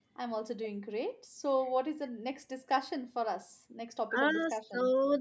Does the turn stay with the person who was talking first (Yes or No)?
No